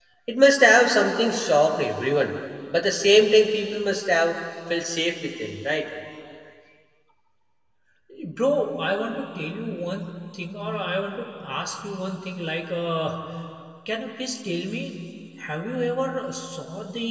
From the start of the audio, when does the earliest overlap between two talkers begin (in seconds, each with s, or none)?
none